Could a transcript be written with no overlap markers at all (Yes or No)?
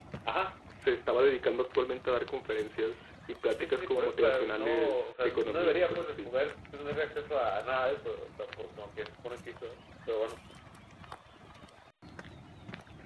No